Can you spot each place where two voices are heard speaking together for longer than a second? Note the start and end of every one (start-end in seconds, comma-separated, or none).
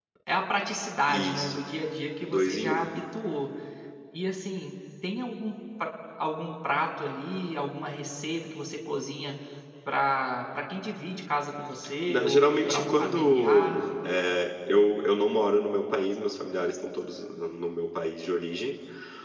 12.1-13.8